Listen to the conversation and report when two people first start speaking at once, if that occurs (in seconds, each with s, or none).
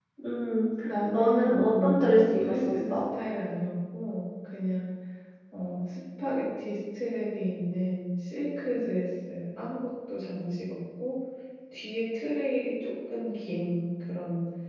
0.8 s